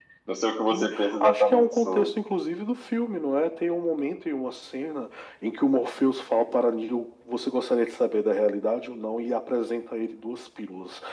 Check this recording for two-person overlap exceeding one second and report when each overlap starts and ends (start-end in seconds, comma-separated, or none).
0.7-2.1